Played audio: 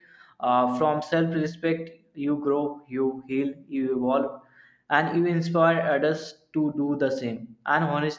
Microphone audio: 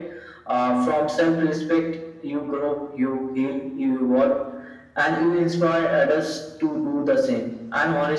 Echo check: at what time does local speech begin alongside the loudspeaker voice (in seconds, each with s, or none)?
none